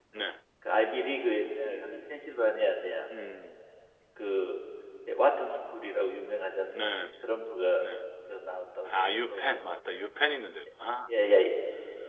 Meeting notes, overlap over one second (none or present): none